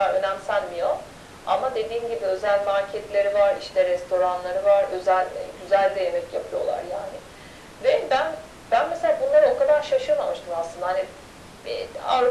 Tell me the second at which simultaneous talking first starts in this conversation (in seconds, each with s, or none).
none